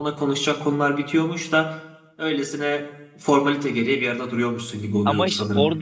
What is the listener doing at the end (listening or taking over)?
taking over